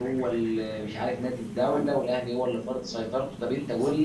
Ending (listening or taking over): listening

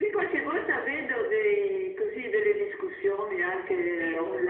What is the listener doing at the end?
listening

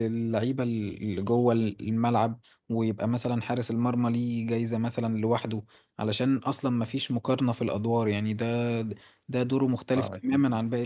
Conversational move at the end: listening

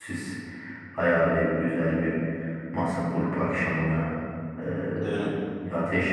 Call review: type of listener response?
listening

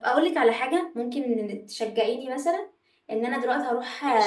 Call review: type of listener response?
listening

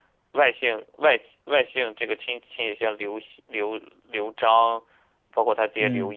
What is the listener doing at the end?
listening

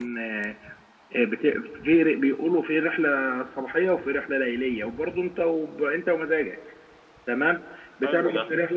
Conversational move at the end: listening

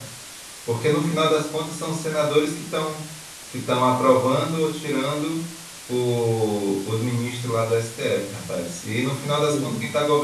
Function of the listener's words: listening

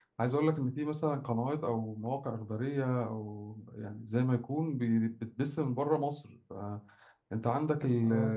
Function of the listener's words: listening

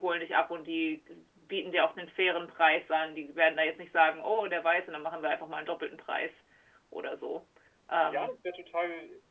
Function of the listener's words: taking over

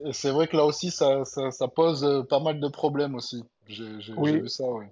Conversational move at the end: taking over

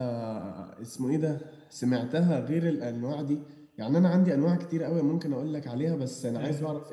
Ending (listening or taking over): listening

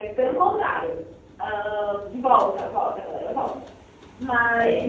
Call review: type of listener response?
listening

